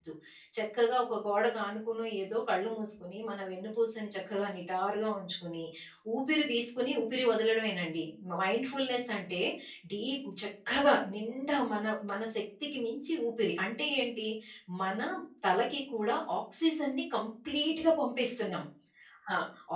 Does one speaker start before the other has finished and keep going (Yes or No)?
No